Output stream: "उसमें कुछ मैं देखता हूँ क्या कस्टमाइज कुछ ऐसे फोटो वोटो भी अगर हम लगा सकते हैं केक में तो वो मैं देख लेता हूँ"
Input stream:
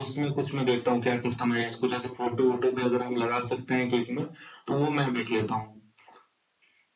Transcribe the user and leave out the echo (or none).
none